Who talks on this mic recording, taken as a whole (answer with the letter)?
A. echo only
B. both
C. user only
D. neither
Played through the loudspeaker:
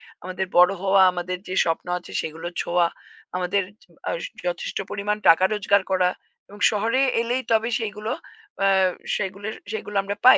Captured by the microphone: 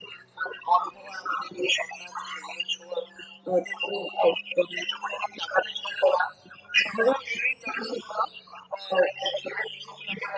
A